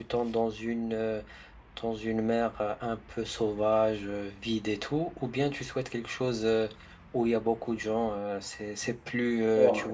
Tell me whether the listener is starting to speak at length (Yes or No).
Yes